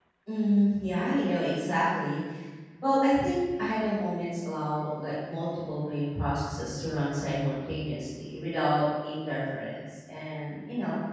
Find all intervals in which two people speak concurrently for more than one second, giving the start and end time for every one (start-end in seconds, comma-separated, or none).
none